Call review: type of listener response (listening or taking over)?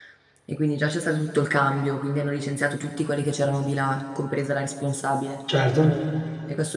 listening